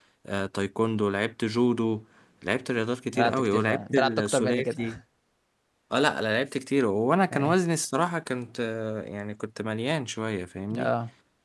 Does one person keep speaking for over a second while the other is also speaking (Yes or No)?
Yes